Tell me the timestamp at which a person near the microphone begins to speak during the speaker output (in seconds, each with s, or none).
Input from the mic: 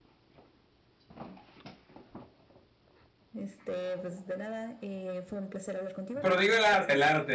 6.2 s